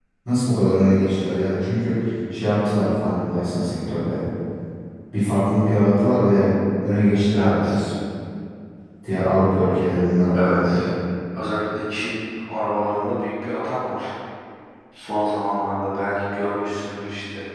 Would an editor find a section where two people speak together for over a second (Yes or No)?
No